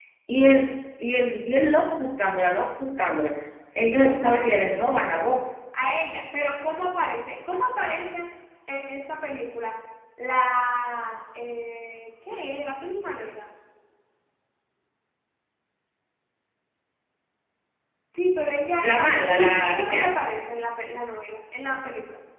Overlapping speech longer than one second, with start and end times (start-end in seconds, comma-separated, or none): 3.8-5.2, 18.8-20.1